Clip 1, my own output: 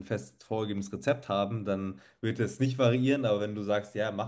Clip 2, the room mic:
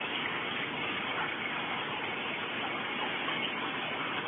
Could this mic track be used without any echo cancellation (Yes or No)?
Yes